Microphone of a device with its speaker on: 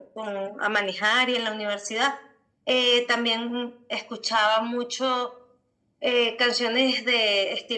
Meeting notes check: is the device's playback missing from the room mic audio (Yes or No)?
No